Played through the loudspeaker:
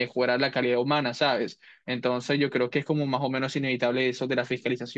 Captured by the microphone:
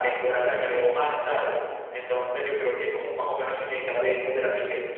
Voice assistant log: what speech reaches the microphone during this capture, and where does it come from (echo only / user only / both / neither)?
echo only